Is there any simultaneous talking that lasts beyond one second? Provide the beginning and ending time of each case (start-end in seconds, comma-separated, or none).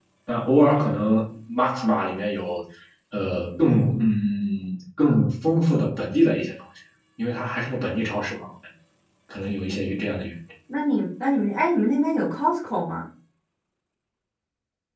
none